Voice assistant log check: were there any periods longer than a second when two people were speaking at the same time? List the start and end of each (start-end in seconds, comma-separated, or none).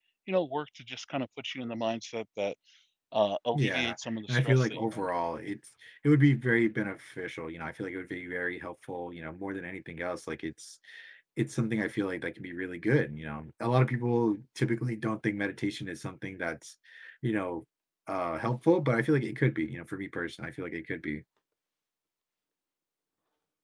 3.5-5.1